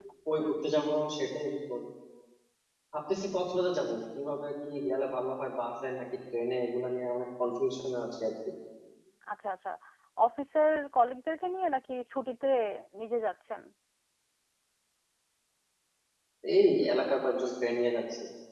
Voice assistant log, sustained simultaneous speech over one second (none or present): none